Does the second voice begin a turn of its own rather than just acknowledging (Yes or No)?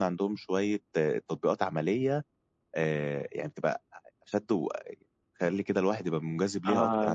Yes